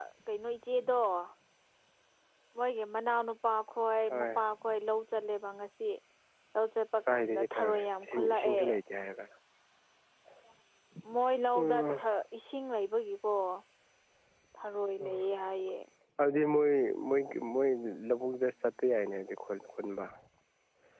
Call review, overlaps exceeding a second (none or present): present